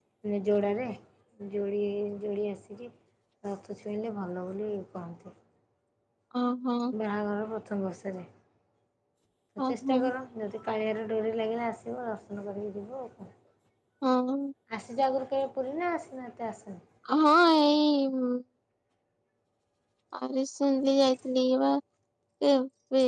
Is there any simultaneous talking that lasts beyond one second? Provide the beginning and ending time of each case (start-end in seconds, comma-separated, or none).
none